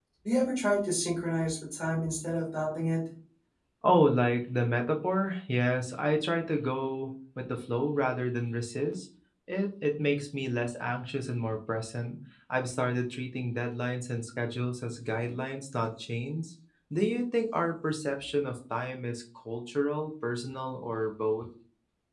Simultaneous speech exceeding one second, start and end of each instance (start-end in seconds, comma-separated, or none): none